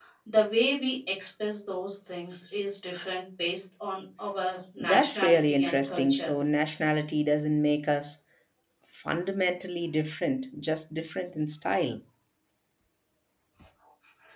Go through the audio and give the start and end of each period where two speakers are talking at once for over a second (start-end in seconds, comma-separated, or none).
4.8-6.3